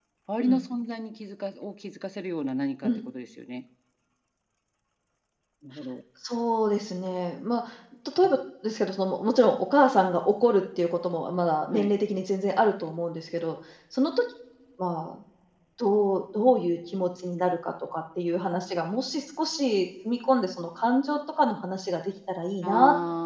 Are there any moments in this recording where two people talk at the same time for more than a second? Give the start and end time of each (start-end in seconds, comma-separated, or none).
none